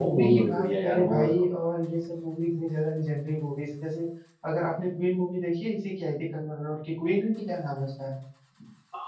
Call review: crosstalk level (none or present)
present